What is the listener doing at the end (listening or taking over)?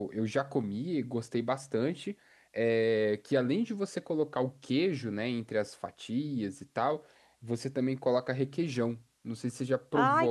taking over